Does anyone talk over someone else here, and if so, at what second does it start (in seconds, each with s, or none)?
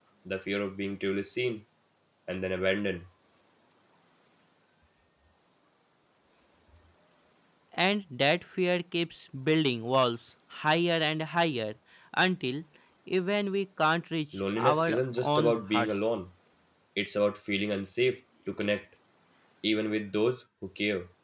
14.3 s